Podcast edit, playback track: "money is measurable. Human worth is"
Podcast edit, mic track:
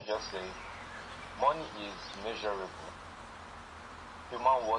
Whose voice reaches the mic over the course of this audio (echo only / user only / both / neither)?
echo only